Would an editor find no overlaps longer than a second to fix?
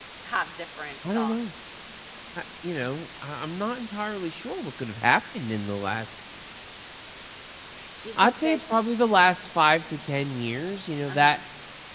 Yes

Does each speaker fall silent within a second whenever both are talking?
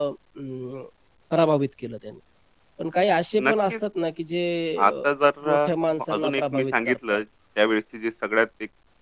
No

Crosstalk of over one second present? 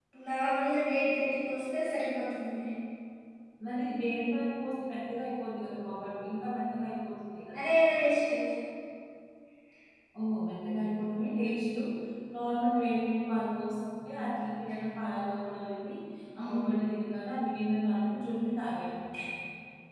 No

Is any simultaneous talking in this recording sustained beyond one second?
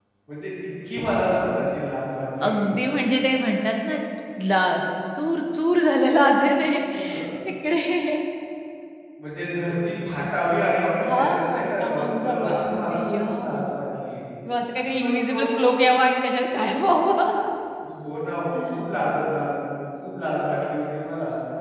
Yes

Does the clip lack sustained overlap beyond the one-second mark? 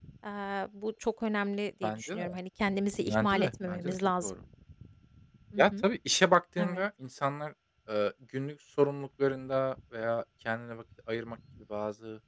No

